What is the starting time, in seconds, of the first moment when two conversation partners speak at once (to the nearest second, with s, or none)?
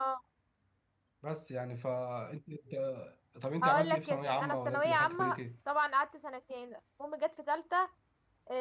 4 s